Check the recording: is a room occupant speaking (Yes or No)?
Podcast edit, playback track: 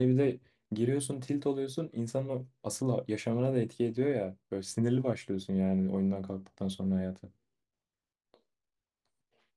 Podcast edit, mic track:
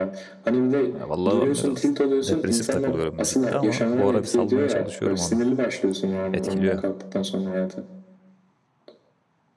Yes